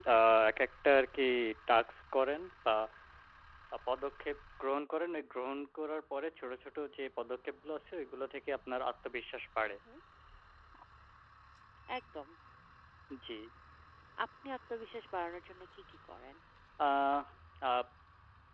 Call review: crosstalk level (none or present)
none